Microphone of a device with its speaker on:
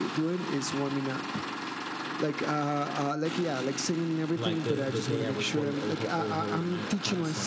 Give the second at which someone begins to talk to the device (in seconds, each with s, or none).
4.3 s